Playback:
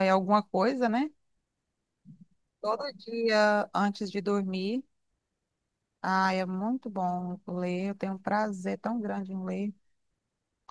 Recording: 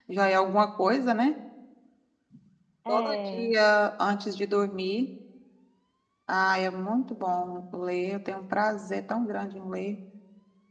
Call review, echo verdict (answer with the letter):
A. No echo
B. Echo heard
B